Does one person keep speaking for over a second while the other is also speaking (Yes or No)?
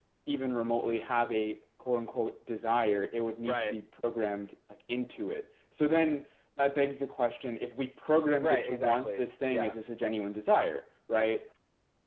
Yes